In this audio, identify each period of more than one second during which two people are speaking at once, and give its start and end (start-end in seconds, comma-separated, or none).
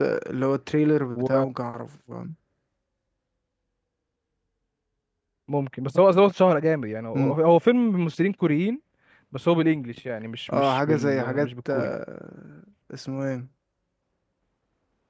10.5-11.9